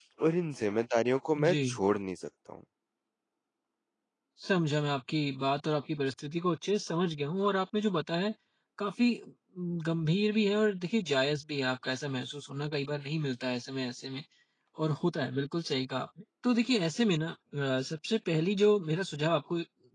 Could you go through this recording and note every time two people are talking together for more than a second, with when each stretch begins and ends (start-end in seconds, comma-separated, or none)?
none